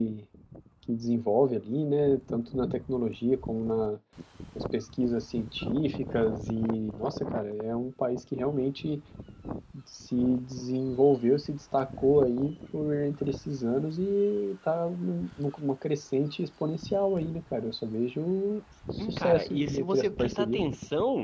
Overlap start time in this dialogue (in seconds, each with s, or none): 19.0 s